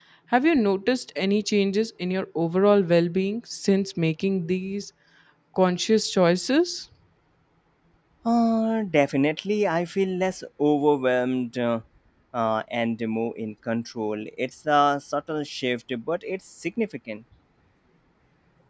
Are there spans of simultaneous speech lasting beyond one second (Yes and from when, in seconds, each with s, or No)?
No